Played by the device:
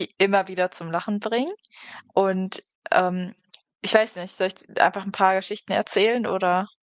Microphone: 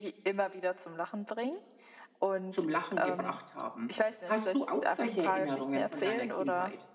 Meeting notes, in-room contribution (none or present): present